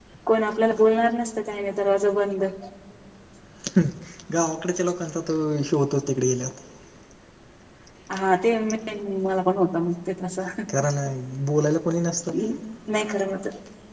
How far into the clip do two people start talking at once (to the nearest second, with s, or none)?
none